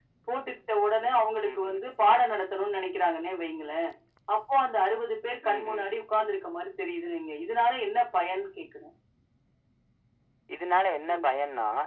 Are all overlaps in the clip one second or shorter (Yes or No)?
Yes